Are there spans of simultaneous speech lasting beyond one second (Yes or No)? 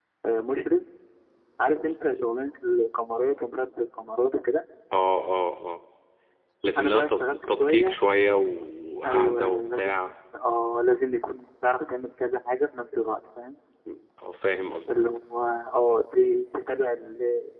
Yes